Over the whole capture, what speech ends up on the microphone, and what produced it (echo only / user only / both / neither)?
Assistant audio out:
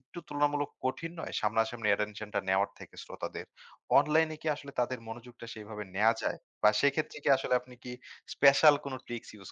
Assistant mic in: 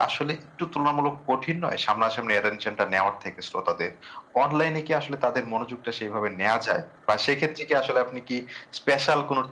echo only